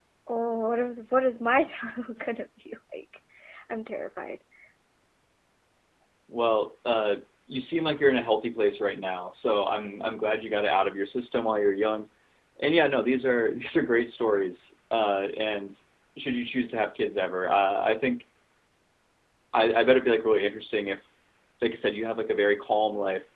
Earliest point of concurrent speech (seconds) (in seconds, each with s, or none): none